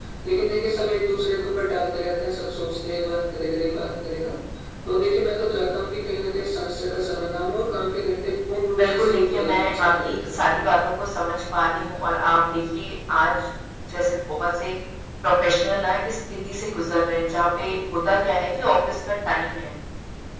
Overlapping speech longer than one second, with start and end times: 8.8-10.2

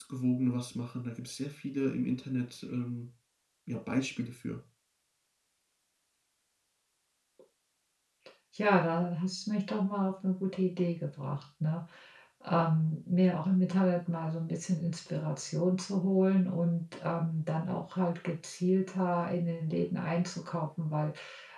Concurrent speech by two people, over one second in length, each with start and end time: none

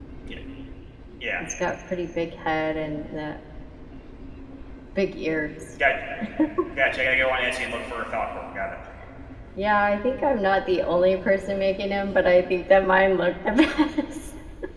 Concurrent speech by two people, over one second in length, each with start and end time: none

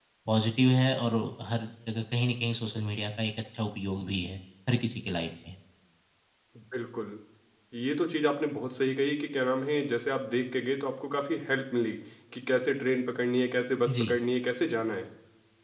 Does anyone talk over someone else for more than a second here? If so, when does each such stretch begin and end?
none

